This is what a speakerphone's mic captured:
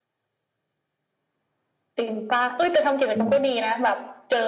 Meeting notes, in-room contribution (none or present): present